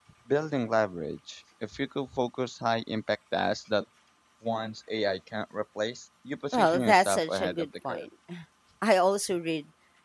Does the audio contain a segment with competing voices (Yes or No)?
Yes